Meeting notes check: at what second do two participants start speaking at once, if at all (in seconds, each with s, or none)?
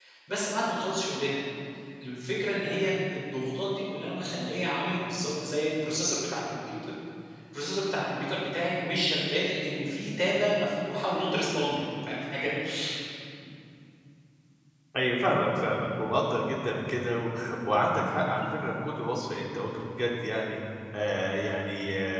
none